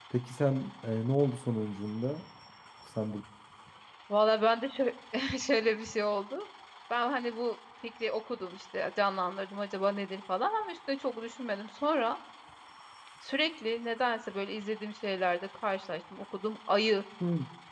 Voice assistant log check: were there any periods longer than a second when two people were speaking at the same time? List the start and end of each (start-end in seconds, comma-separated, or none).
none